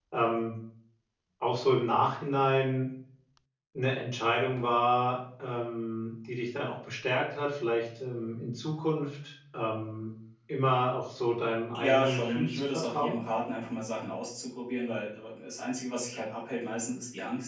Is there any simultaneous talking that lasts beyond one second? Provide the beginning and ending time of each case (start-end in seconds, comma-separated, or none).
11.8-13.2